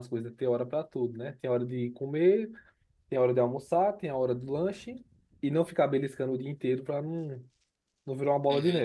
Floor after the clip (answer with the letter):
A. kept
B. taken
B